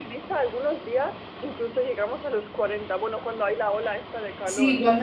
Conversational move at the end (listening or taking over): taking over